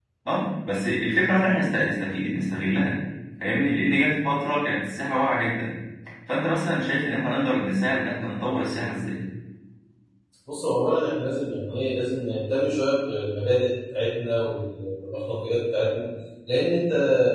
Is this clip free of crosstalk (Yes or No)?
Yes